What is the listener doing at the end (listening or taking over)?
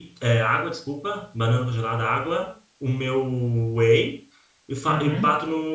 listening